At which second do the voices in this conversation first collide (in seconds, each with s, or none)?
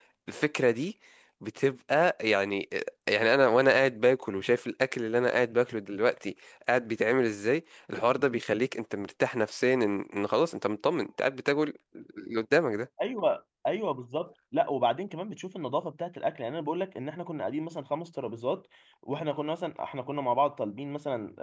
none